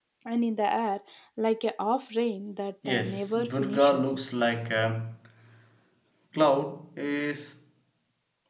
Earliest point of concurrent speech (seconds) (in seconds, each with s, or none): 2.8 s